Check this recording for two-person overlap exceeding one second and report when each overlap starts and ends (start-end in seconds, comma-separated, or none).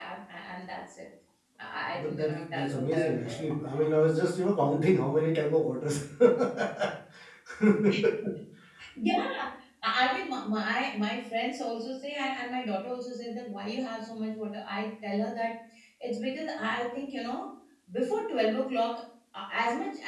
2.0-3.5